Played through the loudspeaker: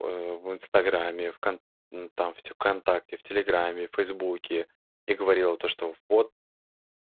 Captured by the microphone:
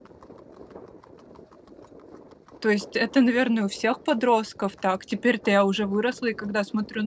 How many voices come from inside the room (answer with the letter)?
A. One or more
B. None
A